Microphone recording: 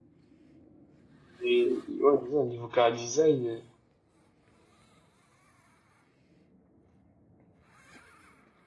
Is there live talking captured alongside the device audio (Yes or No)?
Yes